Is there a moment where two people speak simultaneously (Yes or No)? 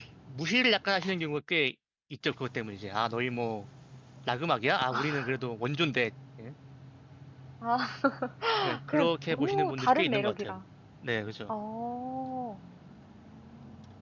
Yes